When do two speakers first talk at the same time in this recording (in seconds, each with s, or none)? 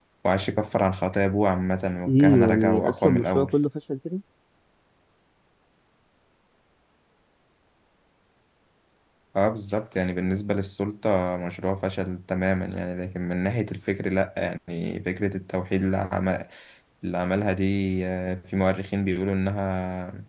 2.0 s